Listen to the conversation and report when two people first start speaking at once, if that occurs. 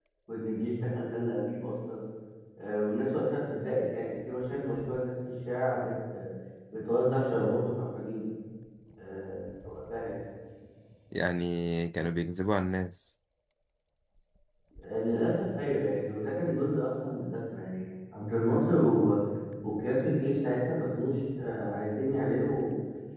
none

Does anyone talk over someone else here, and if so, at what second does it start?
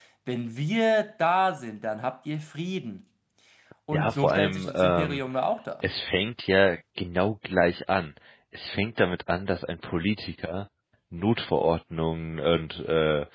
4 s

